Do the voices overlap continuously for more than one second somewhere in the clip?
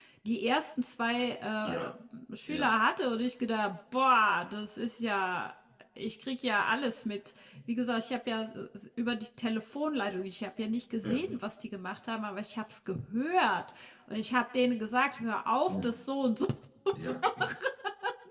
No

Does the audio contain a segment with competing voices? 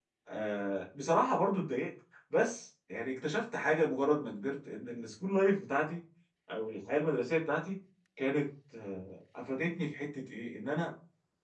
No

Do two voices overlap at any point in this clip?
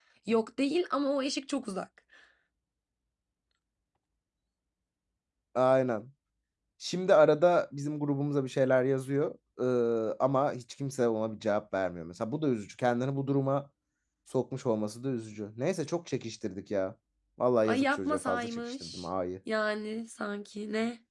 Yes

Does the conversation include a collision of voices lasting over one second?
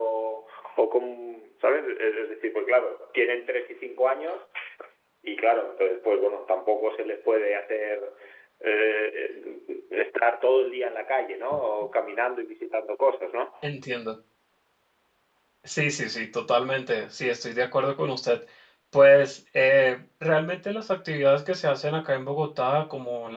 No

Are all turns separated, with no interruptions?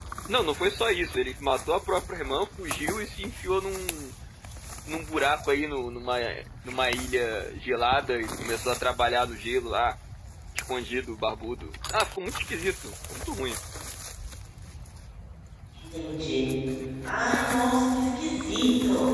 Yes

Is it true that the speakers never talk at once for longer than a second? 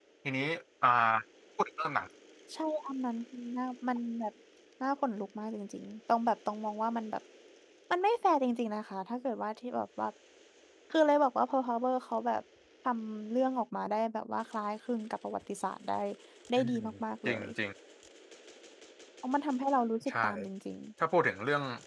Yes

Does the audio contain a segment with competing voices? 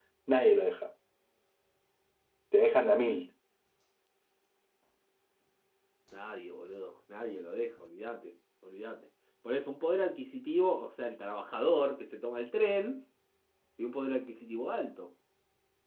No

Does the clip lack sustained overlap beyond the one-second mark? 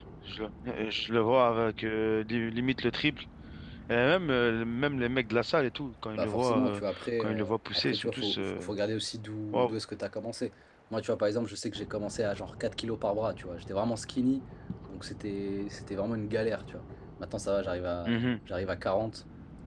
No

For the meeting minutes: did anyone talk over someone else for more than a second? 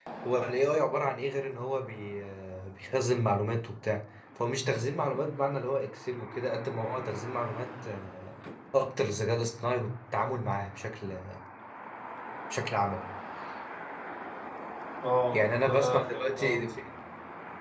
Yes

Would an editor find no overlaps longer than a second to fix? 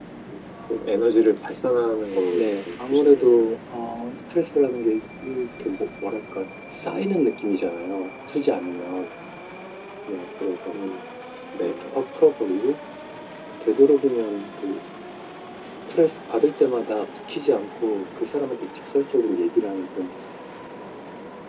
No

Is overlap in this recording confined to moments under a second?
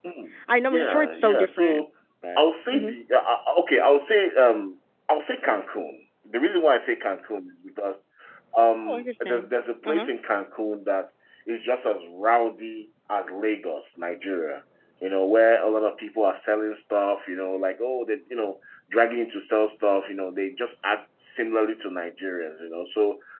No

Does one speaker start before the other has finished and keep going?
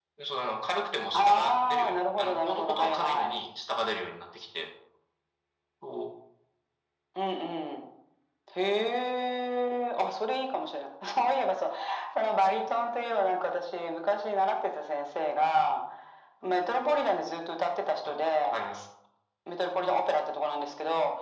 Yes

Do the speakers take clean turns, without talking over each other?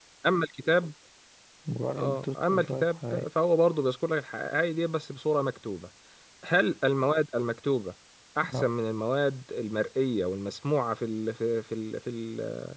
No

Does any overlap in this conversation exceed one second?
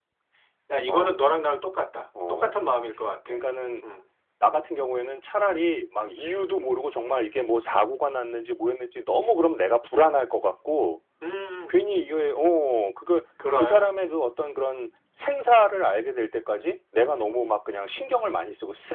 No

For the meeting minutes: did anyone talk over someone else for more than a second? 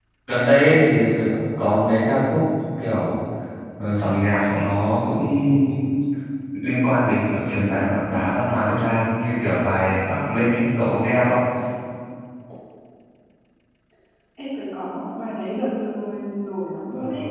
No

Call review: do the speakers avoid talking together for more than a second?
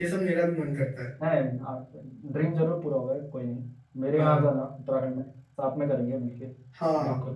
Yes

